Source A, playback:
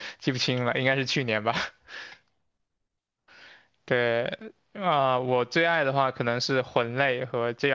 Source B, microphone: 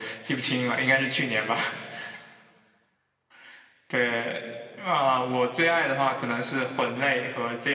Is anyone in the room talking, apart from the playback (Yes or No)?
No